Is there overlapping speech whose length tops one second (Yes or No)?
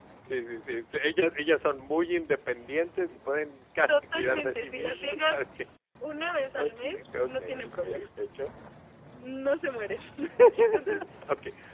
Yes